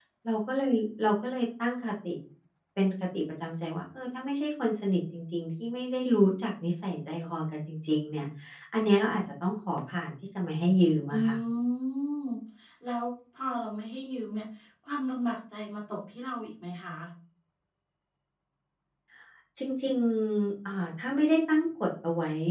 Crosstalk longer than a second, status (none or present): none